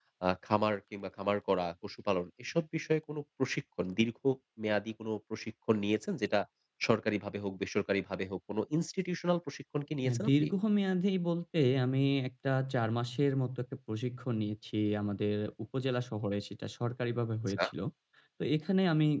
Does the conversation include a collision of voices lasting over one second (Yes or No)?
No